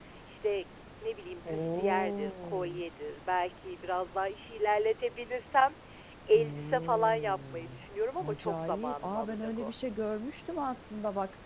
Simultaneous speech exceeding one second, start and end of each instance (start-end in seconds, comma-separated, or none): 1.4-2.8, 6.3-7.8, 8.2-9.7